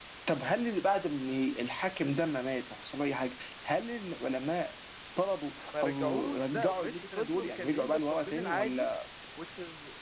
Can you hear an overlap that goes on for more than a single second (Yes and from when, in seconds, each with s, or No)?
Yes, from 5.8 s